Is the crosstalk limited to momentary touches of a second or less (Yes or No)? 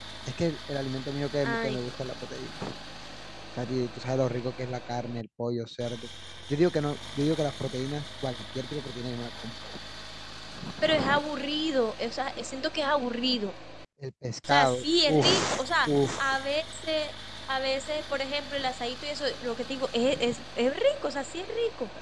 No